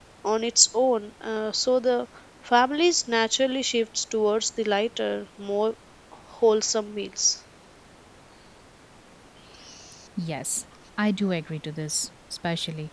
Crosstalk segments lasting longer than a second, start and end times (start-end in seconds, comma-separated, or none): none